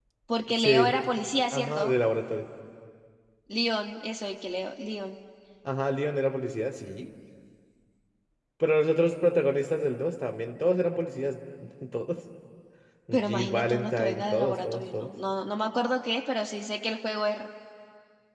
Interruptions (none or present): present